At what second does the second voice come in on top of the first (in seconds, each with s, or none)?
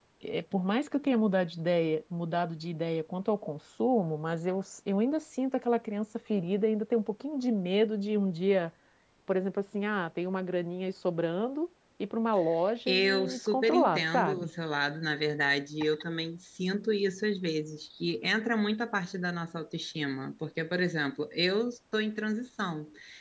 12.9 s